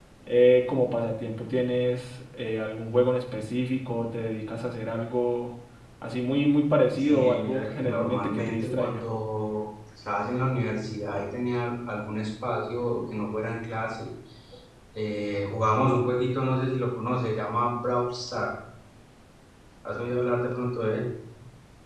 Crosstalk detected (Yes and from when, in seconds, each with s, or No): Yes, from 7.0 s